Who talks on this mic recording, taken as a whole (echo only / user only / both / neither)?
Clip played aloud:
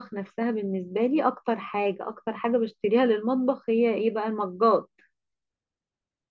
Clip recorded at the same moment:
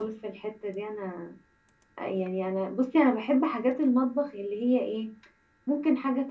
user only